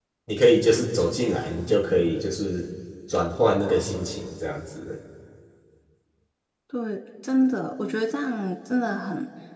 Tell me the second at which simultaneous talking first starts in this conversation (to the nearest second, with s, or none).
none